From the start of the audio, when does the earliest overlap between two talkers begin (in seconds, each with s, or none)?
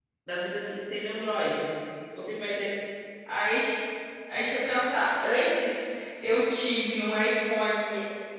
none